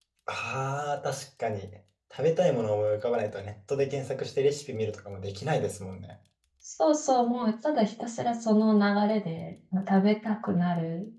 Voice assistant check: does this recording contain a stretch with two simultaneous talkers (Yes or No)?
No